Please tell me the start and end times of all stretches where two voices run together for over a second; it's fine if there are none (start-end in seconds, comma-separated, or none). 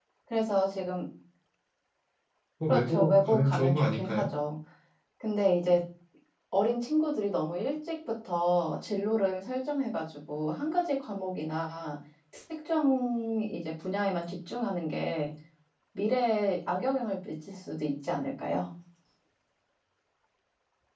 2.7-4.3